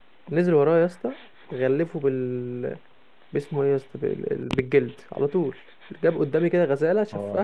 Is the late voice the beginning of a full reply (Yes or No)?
No